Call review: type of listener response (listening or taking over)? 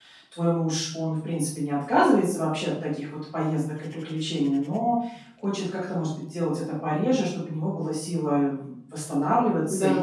listening